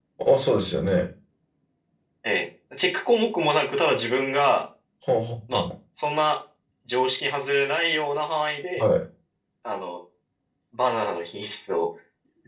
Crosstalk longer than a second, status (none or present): none